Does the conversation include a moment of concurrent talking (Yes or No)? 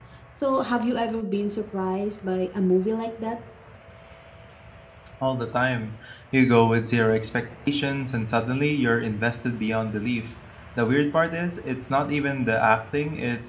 No